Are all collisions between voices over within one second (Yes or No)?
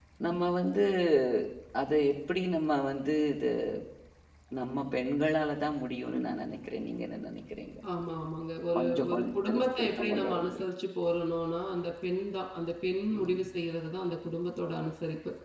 No